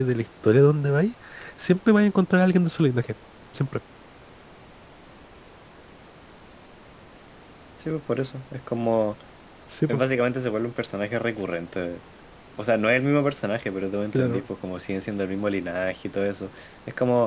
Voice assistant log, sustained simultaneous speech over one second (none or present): none